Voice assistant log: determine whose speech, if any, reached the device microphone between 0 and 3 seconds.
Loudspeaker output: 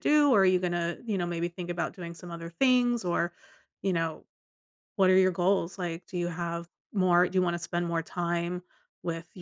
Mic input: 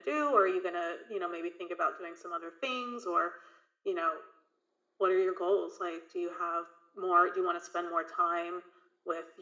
echo only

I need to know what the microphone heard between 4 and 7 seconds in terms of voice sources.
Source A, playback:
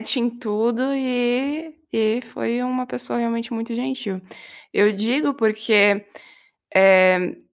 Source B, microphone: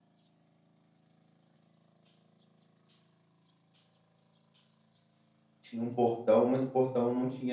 user only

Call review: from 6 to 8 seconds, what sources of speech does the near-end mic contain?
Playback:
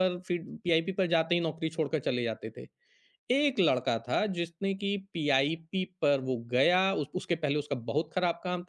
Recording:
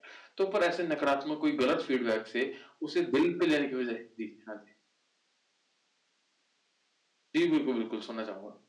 user only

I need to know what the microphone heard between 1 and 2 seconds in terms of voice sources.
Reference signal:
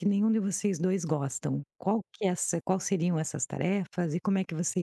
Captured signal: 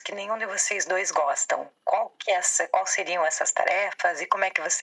echo only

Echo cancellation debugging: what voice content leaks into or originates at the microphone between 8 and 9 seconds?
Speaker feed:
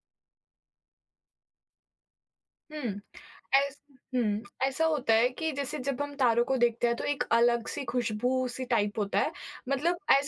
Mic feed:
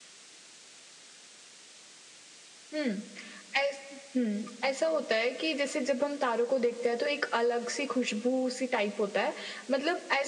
echo only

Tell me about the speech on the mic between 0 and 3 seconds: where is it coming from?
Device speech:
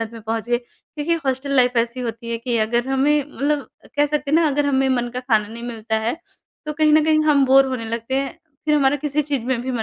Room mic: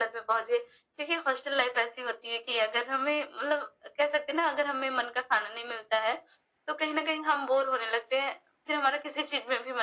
echo only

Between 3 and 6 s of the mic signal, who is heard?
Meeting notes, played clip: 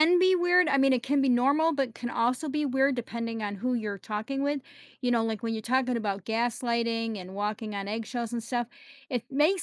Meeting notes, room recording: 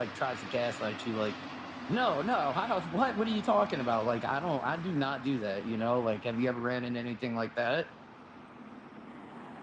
user only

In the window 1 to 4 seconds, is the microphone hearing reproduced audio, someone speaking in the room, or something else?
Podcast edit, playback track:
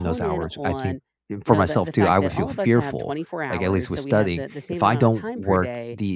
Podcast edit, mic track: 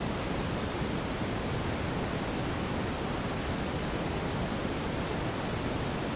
neither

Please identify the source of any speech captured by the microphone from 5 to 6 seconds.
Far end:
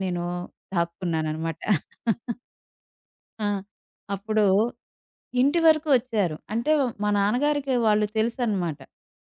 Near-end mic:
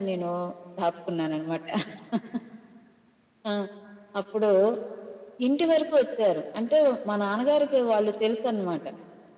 echo only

